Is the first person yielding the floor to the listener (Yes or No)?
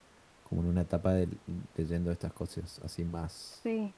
Yes